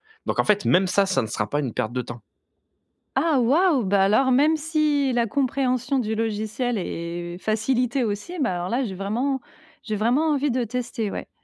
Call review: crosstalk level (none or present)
none